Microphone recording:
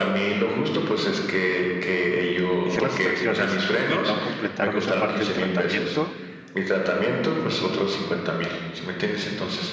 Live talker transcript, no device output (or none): hicieron las extracciones y no completaron esa parte del tratamiento